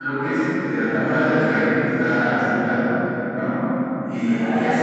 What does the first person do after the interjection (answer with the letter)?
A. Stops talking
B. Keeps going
B